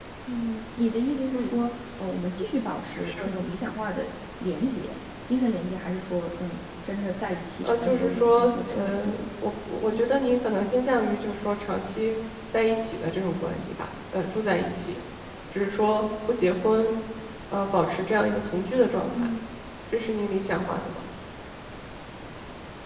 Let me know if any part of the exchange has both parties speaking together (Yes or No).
Yes